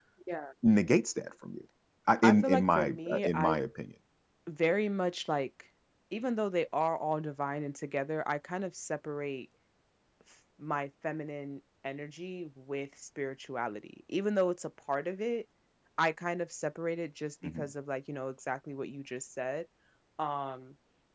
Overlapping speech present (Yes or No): Yes